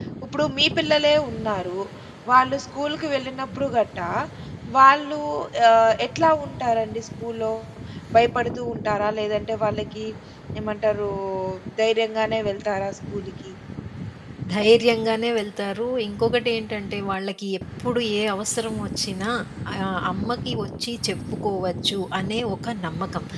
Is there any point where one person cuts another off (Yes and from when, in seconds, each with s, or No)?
No